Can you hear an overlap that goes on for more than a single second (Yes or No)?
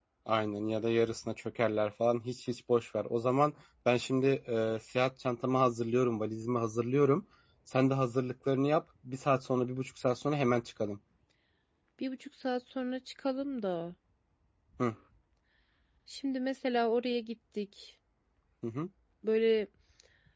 No